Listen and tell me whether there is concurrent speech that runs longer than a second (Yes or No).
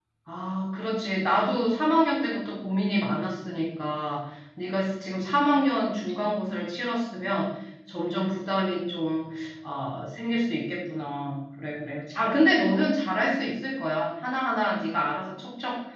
No